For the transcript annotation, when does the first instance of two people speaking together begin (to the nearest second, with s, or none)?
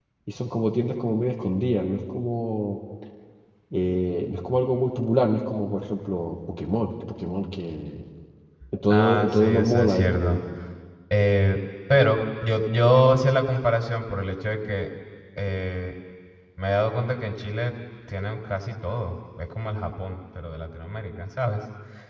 9 s